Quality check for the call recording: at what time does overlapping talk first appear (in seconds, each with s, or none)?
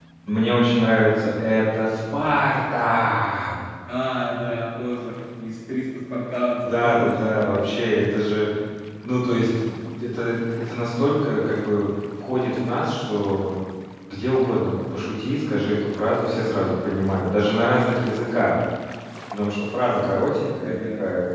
6.6 s